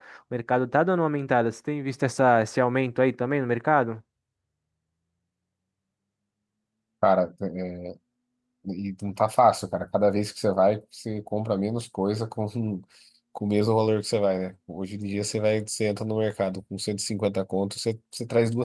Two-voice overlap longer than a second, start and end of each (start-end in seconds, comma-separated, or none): none